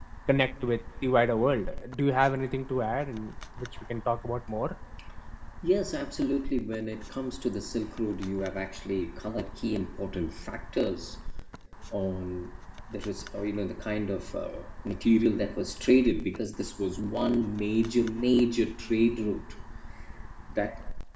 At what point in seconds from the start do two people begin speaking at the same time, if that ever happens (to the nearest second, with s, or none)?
none